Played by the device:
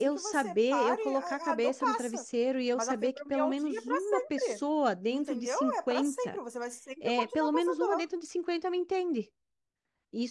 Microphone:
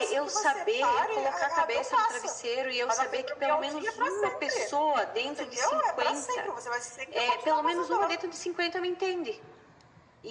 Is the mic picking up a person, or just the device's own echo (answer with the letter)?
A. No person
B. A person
A